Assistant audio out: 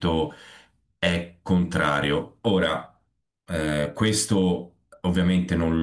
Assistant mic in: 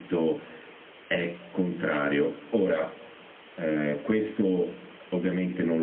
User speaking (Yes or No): No